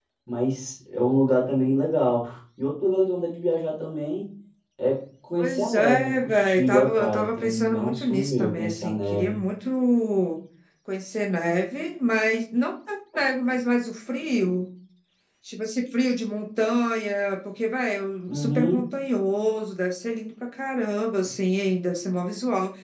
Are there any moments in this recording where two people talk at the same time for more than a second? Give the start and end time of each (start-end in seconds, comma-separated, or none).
5.4-9.4